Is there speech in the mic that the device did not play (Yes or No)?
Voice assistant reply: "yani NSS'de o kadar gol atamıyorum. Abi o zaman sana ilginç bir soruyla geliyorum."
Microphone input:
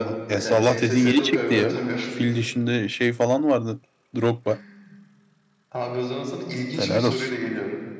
Yes